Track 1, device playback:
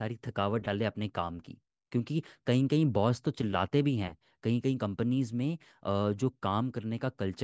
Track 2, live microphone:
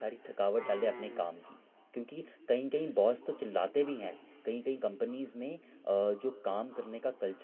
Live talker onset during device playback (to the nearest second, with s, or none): 1 s